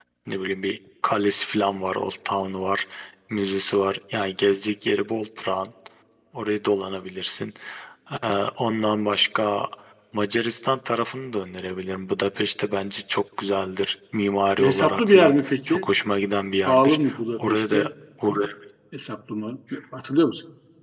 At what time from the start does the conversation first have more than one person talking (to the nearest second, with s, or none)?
15 s